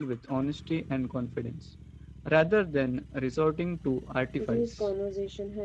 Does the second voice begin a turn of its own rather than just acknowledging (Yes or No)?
Yes